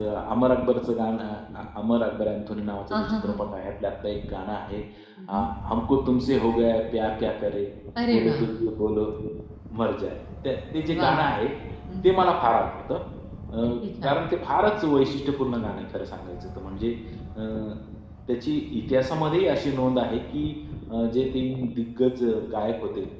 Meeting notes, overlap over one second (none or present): none